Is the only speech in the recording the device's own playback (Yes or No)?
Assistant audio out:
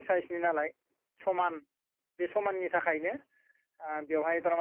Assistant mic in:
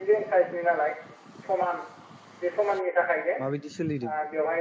No